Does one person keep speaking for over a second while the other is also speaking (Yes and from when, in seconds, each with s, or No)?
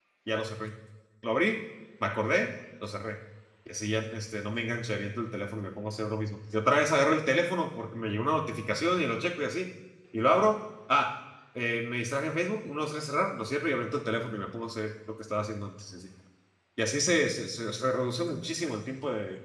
No